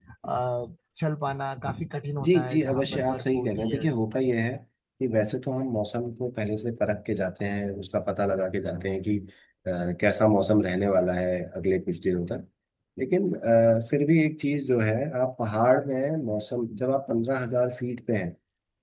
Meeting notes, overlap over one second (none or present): present